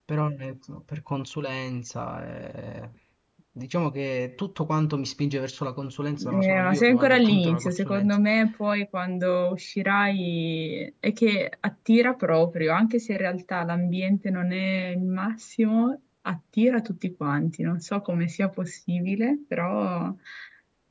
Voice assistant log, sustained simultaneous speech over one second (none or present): present